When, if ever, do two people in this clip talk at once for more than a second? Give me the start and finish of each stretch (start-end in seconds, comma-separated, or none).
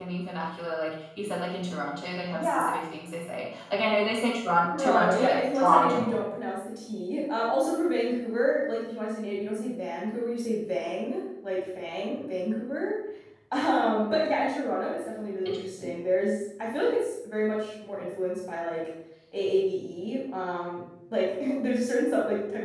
4.8-6.1